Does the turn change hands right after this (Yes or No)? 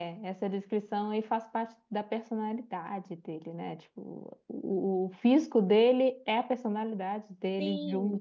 Yes